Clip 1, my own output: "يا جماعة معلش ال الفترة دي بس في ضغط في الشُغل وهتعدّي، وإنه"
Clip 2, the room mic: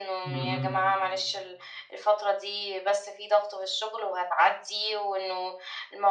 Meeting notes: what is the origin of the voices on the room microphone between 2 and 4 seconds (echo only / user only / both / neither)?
echo only